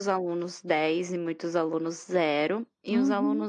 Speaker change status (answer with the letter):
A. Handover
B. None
B